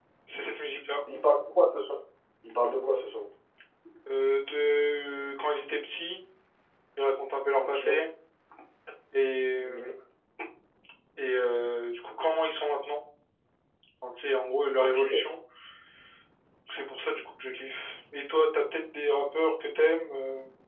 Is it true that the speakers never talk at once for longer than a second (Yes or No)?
Yes